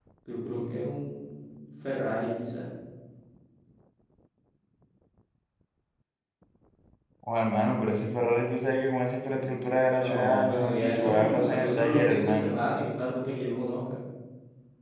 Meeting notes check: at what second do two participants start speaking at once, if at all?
10 s

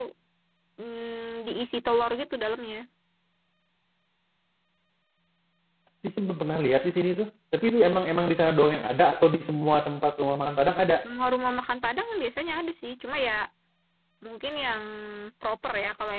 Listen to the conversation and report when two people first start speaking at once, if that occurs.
none

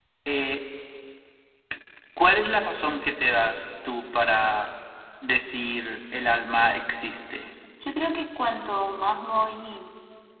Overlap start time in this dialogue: none

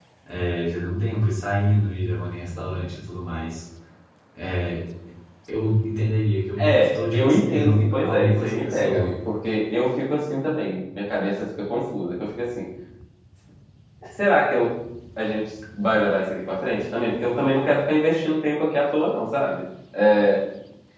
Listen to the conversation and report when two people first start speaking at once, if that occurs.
7 s

